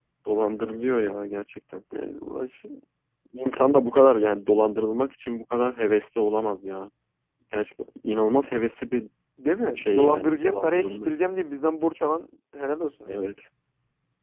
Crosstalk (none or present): present